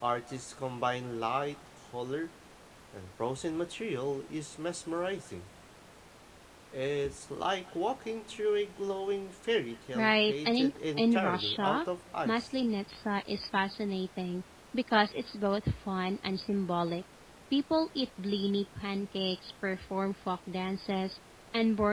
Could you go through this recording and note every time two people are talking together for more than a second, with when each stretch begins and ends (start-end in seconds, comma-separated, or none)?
10.0-11.8